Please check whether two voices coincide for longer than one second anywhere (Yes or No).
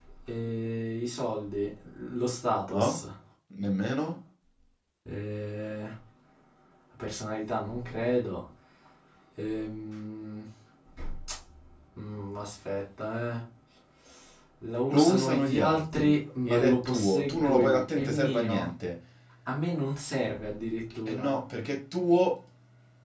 Yes